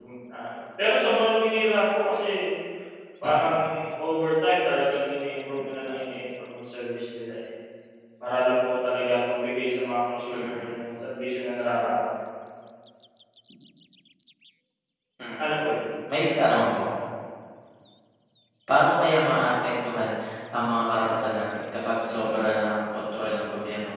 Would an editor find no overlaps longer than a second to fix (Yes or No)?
Yes